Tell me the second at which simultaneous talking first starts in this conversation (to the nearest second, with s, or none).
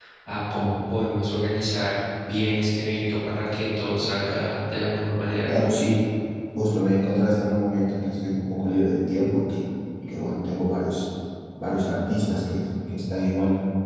none